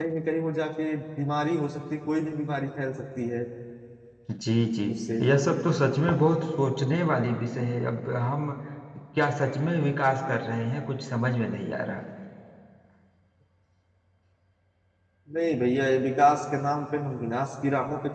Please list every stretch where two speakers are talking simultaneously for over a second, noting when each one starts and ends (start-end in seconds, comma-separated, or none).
none